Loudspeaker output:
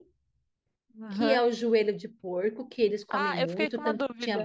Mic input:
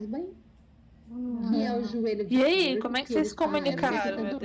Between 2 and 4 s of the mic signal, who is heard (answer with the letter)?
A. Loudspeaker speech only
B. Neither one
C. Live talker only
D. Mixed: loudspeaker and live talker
D